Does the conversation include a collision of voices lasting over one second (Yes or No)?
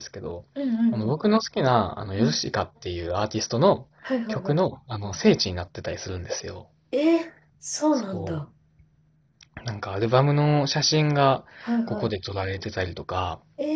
No